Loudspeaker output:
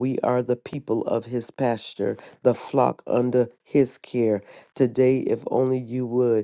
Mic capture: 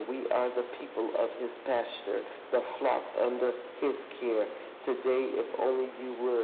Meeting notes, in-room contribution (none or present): none